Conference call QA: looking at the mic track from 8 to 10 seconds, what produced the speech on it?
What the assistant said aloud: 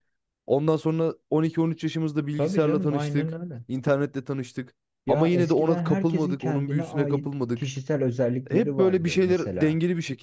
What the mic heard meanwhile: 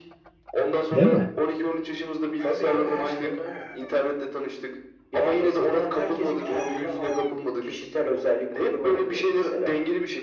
echo only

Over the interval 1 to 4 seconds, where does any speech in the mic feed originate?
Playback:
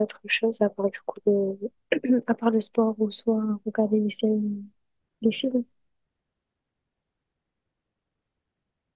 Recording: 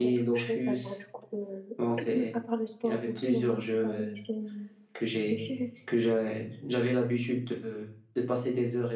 both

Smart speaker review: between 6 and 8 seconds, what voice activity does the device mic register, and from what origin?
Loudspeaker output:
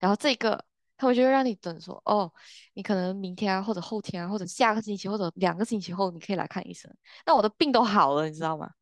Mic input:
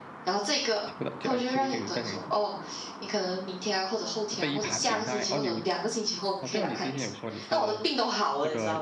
both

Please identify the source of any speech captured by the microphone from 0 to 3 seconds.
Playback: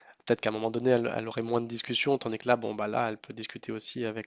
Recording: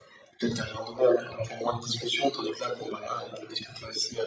echo only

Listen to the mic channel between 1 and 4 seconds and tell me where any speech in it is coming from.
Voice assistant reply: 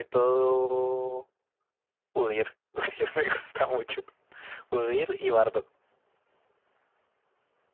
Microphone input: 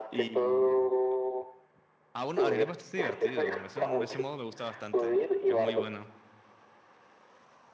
both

